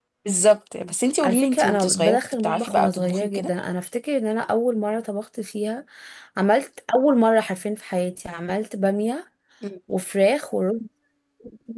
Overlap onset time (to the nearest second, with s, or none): 1 s